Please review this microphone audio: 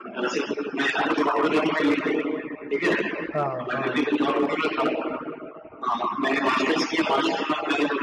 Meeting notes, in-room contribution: present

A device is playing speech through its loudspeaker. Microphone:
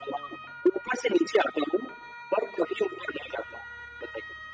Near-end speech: none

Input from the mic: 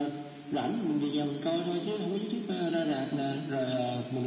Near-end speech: none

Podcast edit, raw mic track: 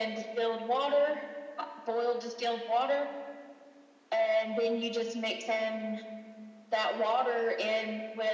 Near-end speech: none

